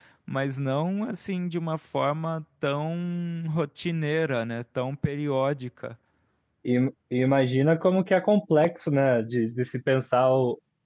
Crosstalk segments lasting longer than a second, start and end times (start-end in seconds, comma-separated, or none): none